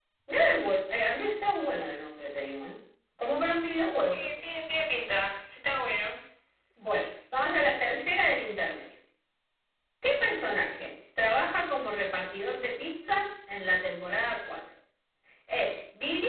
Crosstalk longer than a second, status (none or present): none